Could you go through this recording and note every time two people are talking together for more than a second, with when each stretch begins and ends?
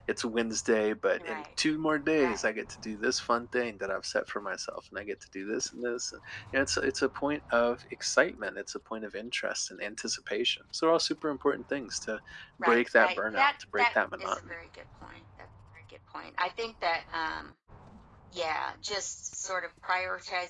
12.6-14.5

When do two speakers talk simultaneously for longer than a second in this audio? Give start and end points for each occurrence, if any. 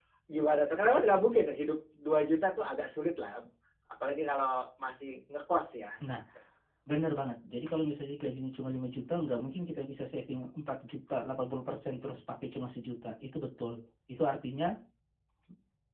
none

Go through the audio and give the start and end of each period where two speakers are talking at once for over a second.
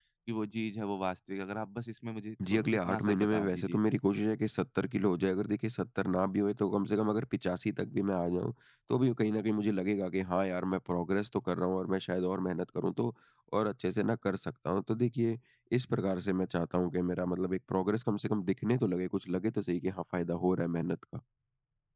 2.5-3.8

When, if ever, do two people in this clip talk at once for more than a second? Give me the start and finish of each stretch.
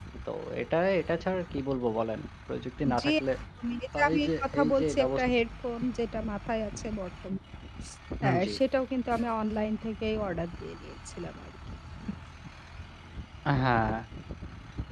4.0-5.2

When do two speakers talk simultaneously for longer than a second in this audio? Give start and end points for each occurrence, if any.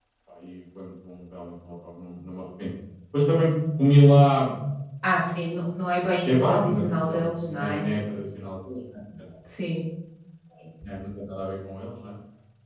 6.2-7.8

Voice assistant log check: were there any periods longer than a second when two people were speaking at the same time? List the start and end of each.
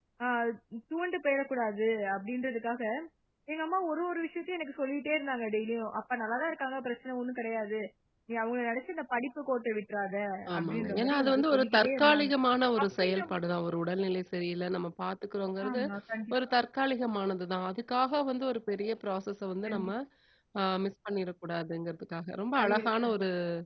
10.6-12.3

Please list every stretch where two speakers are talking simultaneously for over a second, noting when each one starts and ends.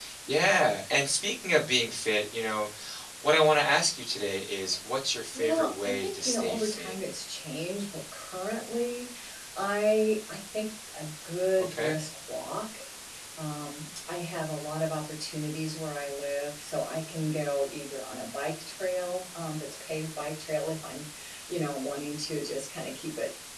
5.3-6.9

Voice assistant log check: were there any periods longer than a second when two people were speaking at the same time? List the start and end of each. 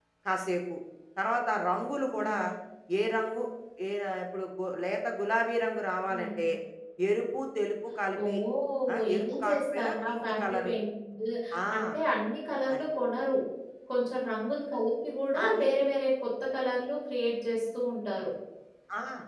8.9-10.7

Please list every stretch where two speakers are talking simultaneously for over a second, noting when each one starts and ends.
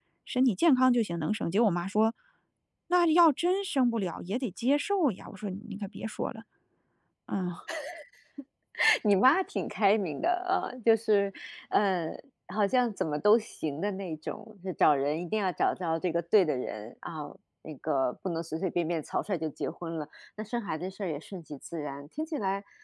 none

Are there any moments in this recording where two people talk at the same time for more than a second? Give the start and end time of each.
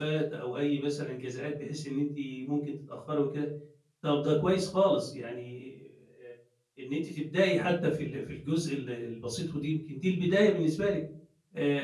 none

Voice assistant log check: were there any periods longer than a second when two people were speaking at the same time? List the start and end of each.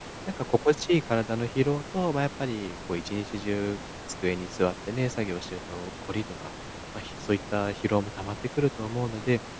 none

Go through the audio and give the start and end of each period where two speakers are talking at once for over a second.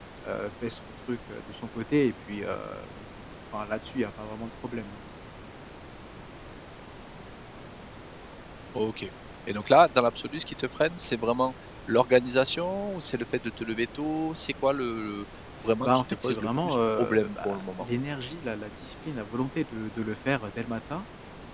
15.8-17.9

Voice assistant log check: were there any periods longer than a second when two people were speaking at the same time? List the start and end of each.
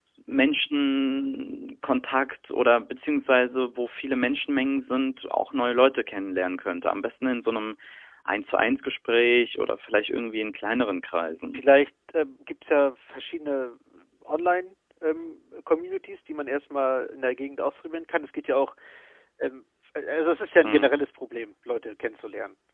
none

